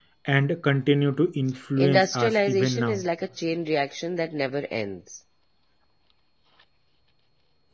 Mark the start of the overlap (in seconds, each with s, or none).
1.8 s